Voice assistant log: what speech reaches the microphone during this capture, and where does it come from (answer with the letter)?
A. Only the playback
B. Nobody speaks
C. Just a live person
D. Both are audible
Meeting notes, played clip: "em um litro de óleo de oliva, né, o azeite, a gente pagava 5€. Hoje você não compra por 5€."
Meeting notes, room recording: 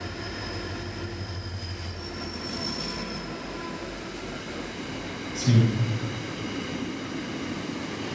C